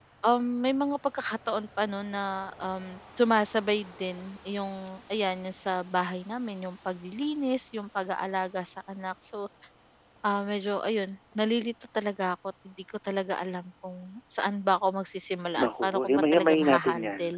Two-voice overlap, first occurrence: 15.6 s

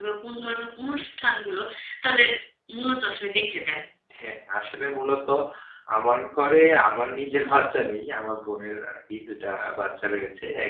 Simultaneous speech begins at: none

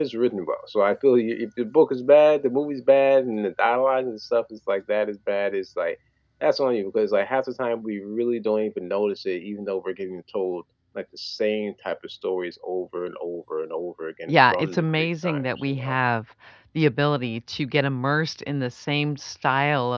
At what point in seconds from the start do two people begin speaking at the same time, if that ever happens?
14.3 s

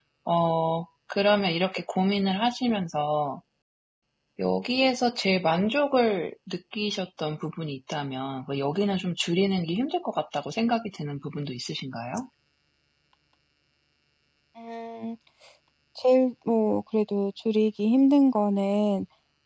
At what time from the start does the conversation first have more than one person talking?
none

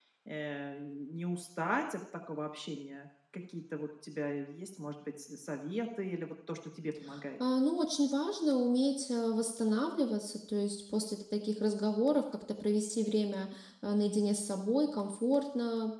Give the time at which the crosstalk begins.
none

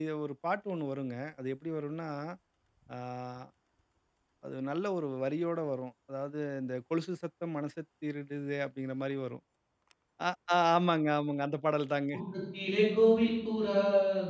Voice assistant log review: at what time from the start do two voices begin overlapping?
none

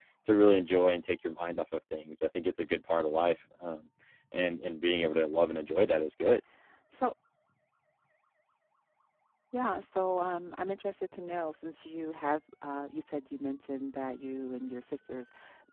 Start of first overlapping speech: none

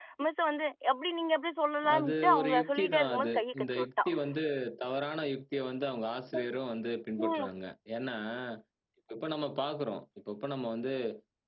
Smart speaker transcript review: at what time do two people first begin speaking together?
2.0 s

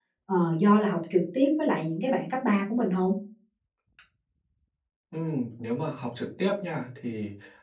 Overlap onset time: none

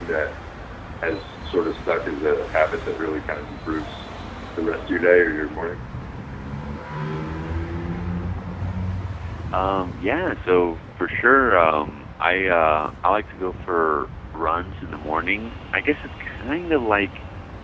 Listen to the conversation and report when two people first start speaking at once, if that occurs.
none

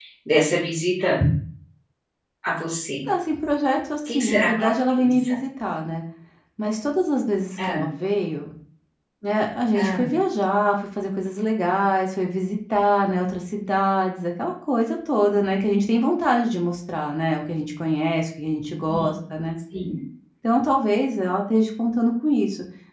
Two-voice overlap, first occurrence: 4.1 s

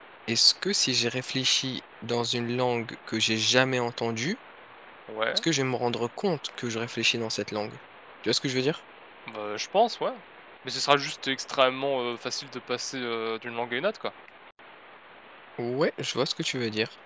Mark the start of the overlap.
none

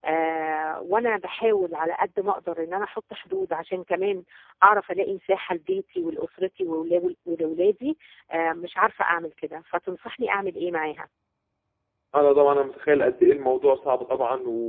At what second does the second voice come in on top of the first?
none

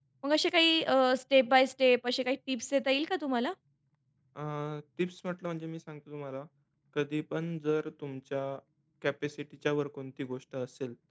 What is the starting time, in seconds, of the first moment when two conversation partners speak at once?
none

